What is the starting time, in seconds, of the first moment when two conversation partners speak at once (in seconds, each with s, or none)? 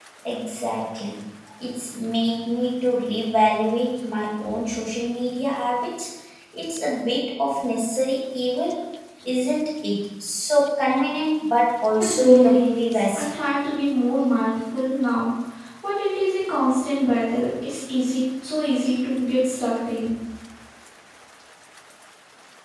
12.0 s